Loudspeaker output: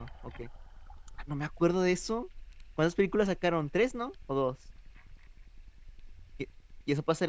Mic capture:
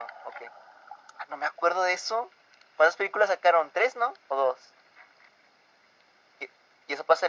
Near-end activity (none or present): none